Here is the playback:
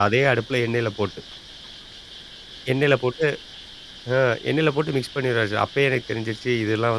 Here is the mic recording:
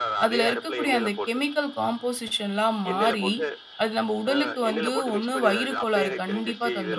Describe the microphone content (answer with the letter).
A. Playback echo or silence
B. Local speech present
B